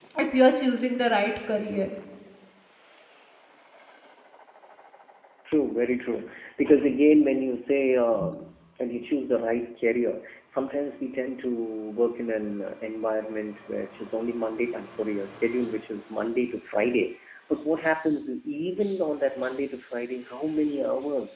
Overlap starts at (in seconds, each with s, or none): none